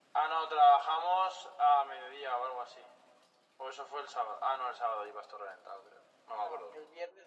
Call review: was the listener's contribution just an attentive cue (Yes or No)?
No